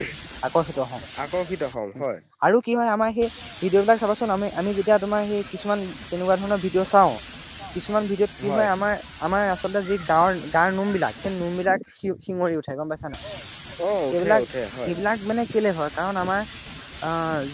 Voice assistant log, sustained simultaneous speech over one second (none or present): none